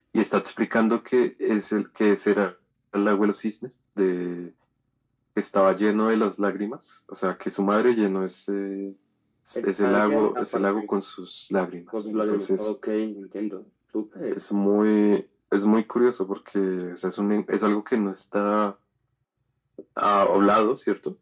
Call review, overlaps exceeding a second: present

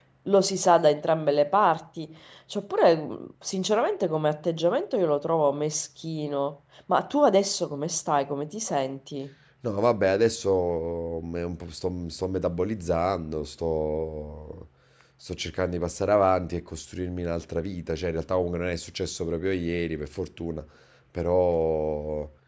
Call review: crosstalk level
none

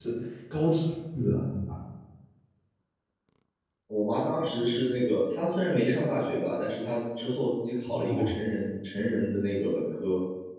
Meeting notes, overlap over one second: none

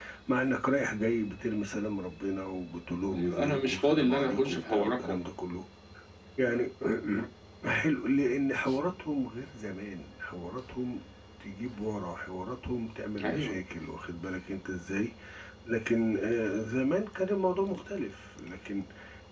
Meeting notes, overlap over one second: present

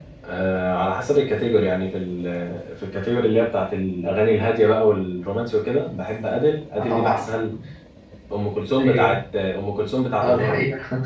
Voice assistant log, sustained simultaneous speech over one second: none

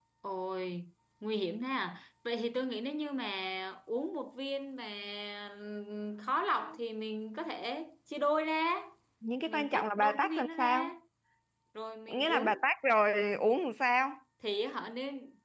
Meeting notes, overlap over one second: present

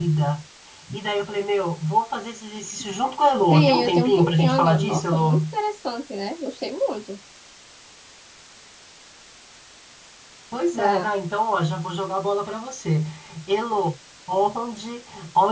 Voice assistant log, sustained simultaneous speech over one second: present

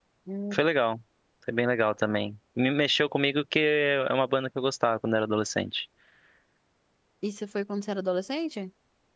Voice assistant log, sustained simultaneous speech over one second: none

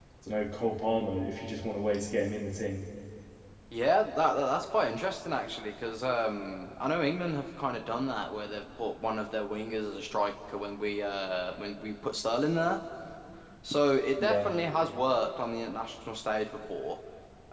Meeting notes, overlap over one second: none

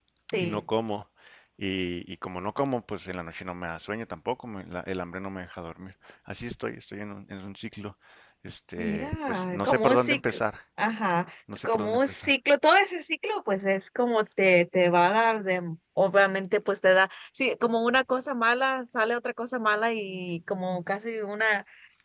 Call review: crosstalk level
present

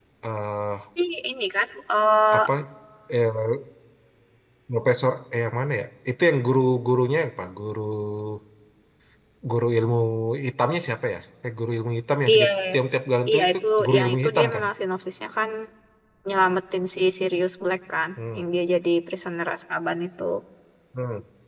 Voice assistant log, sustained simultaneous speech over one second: present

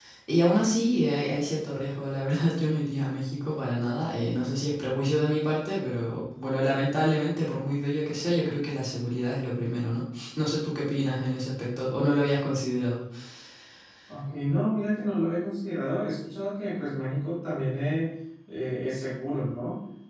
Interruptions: none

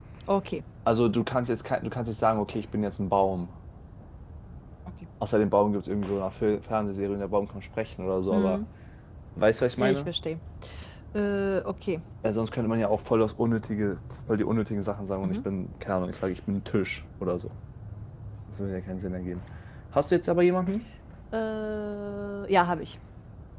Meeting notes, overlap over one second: none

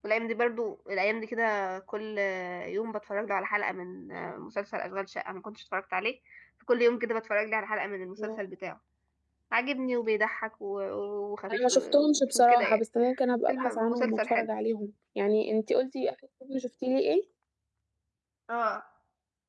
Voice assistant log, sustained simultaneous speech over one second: present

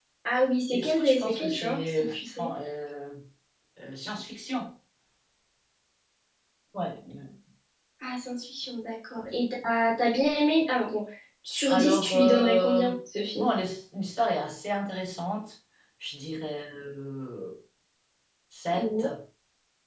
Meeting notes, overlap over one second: present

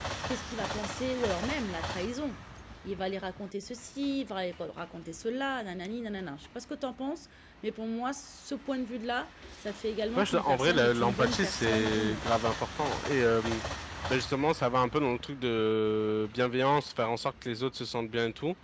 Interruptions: present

